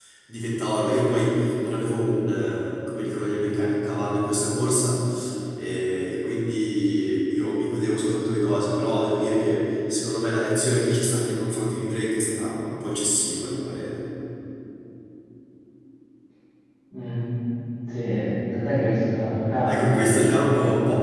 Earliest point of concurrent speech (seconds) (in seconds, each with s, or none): 19.6 s